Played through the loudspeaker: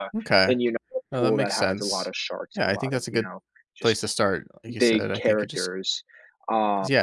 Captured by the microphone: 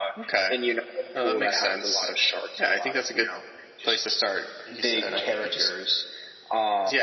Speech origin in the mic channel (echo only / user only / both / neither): echo only